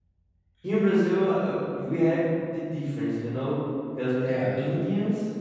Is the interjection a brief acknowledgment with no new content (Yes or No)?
Yes